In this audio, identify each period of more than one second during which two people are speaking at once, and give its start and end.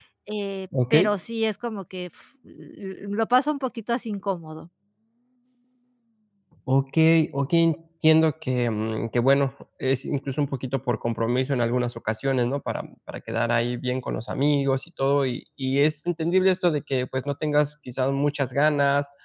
none

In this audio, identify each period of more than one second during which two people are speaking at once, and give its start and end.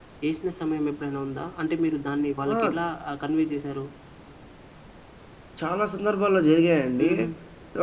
none

